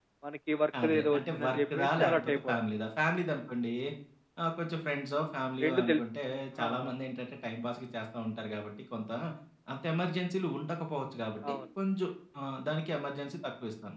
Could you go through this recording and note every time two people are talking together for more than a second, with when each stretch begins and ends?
0.8-2.6

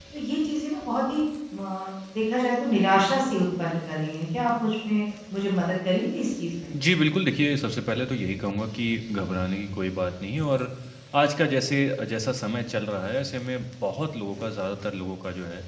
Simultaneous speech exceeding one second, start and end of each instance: none

